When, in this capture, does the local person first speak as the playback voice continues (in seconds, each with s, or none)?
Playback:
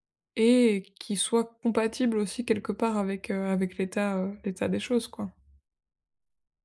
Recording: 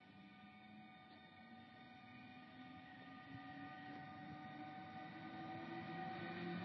none